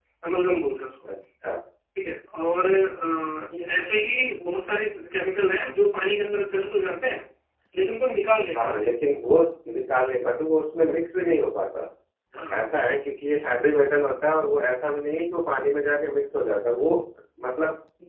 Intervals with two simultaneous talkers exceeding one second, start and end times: none

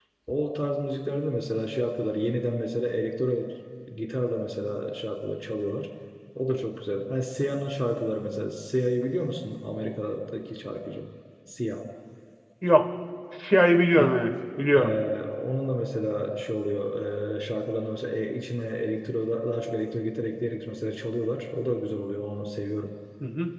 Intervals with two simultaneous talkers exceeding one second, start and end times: none

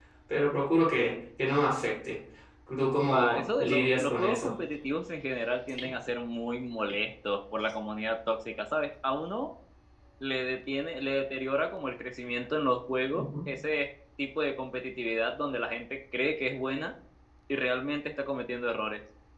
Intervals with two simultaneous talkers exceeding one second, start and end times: 3.1-4.5

